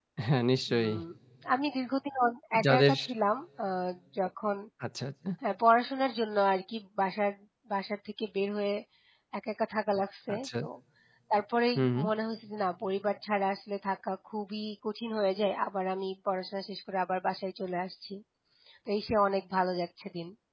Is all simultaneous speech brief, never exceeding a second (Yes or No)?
Yes